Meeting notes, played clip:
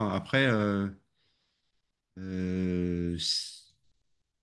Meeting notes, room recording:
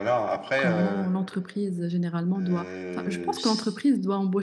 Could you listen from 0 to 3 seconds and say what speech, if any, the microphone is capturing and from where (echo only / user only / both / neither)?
both